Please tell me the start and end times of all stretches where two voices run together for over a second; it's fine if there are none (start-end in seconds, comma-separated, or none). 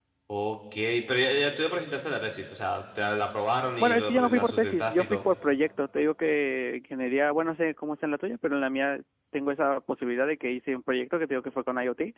3.8-5.2